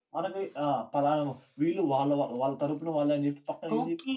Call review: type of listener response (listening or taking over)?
taking over